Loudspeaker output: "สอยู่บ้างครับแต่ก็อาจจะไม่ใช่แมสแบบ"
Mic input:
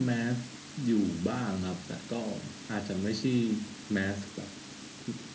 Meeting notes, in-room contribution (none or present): none